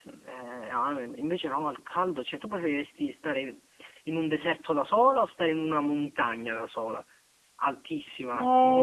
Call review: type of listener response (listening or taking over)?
taking over